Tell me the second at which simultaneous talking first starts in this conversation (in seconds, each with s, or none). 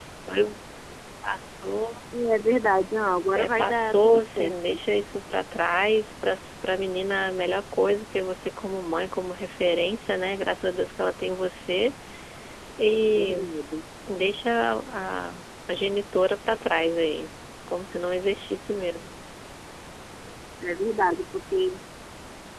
3.4 s